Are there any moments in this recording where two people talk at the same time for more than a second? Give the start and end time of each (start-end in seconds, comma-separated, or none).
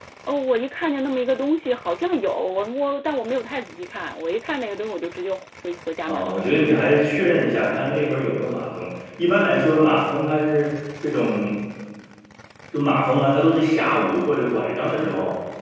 none